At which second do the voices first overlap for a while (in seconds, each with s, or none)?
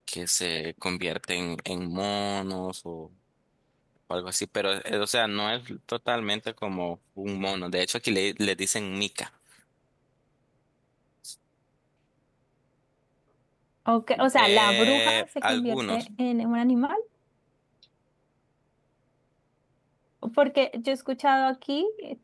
14.3 s